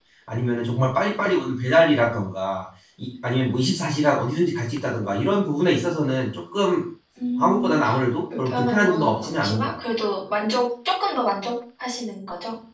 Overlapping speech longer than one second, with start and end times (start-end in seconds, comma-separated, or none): 8.4-9.7